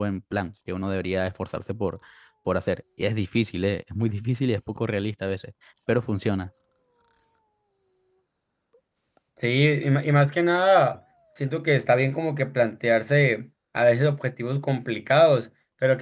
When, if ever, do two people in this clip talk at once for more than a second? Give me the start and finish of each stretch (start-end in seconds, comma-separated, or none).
none